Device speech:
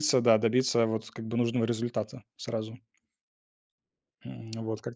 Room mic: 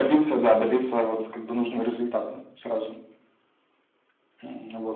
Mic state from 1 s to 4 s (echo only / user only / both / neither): echo only